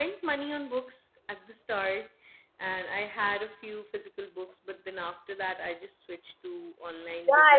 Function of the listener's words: taking over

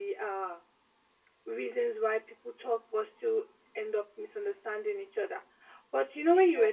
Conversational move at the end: listening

